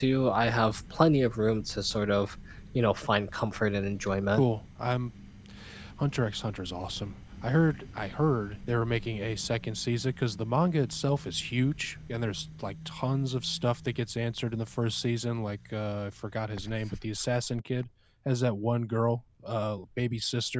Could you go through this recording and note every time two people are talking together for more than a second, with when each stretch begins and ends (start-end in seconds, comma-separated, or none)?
none